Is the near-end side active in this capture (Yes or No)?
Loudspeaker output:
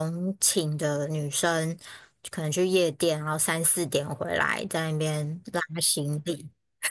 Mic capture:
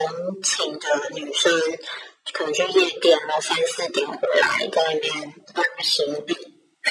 No